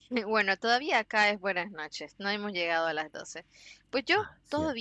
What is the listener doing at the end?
listening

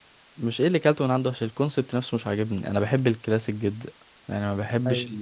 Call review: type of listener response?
listening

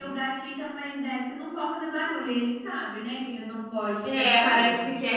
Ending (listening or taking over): taking over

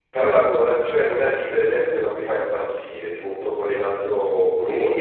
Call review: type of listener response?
taking over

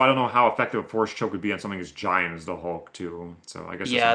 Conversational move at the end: taking over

